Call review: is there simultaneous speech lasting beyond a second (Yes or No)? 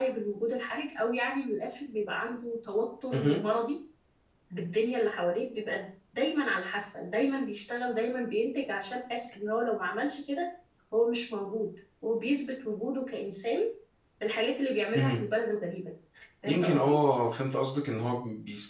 No